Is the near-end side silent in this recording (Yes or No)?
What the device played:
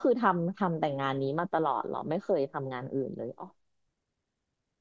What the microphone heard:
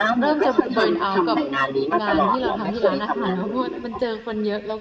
No